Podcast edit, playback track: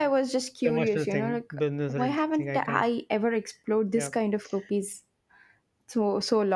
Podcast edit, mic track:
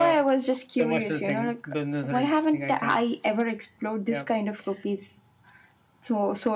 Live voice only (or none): none